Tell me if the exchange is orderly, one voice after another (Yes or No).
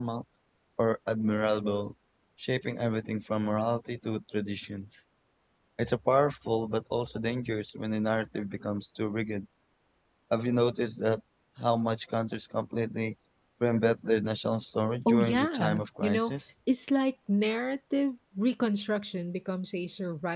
No